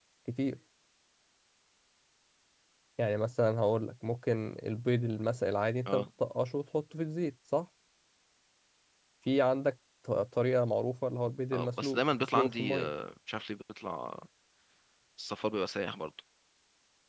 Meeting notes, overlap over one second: present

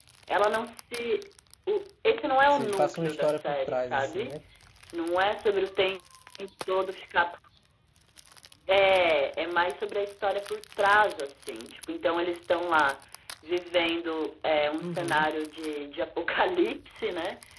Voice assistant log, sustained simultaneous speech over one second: present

